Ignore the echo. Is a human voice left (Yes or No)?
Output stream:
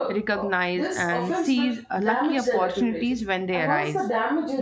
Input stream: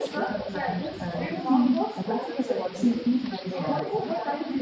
Yes